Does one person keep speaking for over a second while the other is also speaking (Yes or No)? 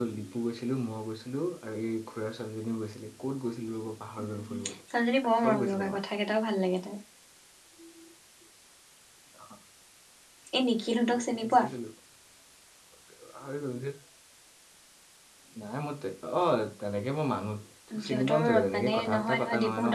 Yes